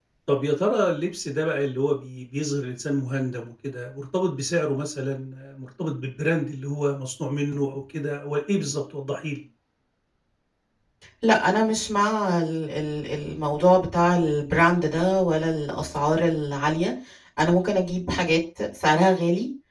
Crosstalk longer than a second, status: none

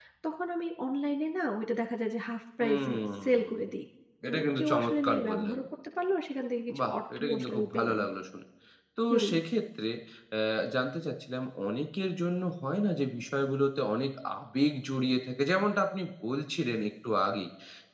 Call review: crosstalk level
present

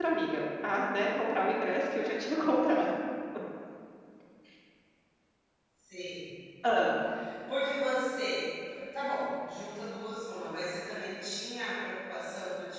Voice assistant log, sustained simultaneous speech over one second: none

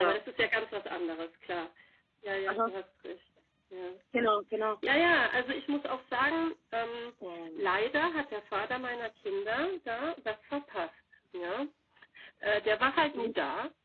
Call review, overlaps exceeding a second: none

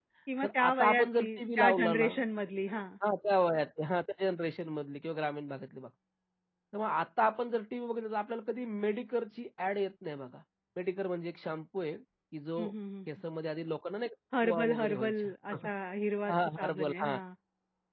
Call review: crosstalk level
present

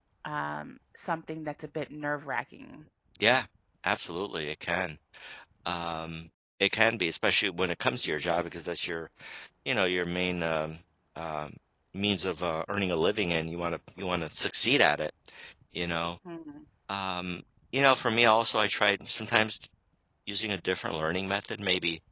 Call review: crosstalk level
none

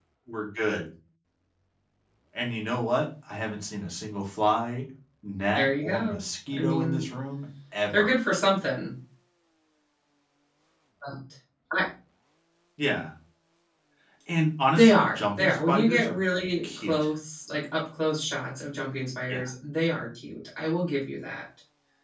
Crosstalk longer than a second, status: present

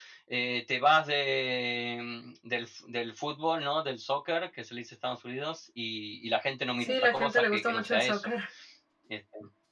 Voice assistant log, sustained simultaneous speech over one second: present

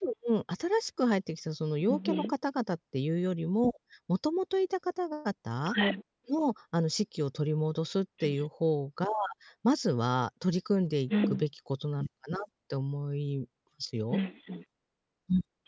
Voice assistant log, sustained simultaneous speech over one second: none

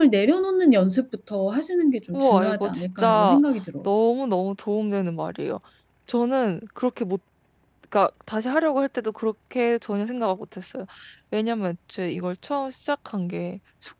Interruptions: present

